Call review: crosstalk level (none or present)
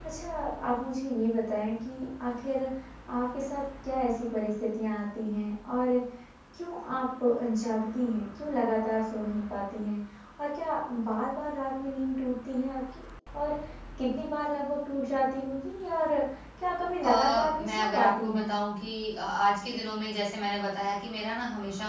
present